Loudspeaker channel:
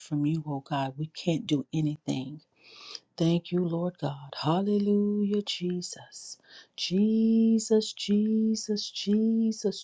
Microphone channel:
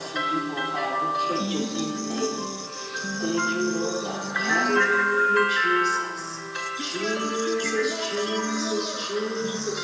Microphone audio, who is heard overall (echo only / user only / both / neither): both